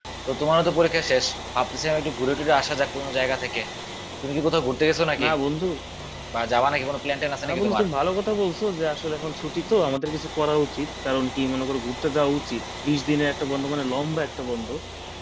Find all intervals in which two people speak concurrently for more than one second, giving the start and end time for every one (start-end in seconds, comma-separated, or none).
none